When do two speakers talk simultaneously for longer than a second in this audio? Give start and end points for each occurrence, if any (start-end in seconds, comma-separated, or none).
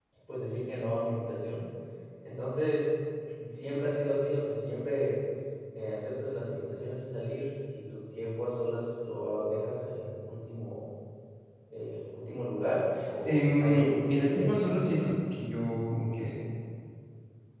13.2-15.0